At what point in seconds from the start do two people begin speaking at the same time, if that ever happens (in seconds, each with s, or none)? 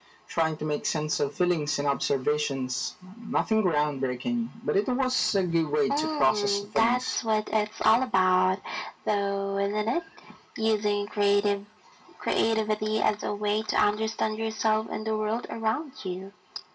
5.9 s